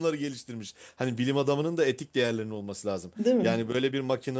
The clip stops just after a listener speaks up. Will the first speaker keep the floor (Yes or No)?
Yes